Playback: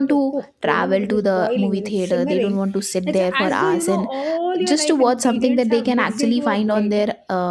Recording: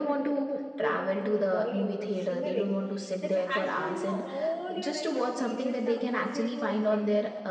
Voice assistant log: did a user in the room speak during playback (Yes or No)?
No